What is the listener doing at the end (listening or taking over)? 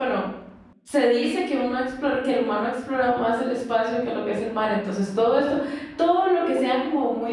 listening